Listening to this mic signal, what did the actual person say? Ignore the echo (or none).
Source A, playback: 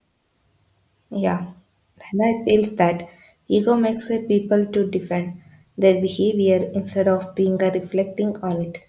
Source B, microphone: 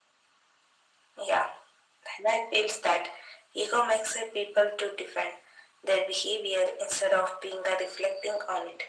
none